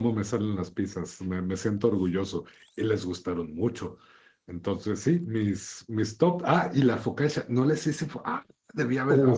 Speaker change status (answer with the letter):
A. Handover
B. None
A